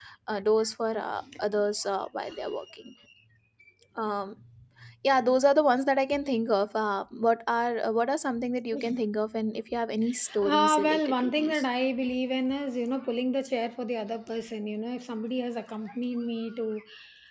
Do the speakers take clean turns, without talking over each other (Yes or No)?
No